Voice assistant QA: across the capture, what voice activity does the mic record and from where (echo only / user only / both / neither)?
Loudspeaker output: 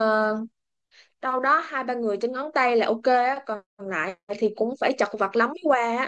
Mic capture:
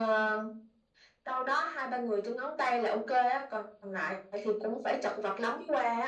echo only